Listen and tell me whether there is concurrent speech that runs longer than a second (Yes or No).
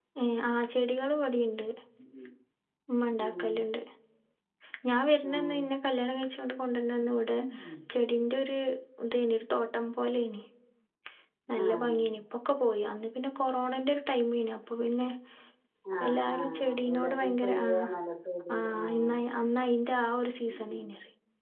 Yes